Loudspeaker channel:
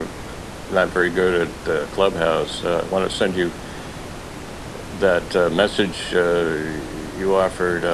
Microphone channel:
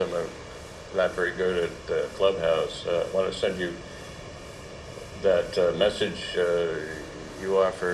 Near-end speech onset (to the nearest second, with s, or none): none